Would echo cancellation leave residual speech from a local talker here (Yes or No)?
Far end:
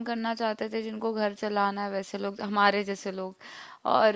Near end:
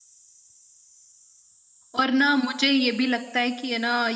Yes